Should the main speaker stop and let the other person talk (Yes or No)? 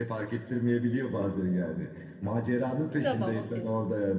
No